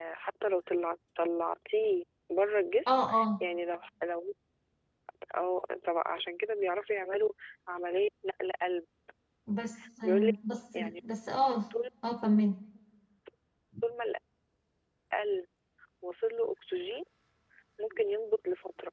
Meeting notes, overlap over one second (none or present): none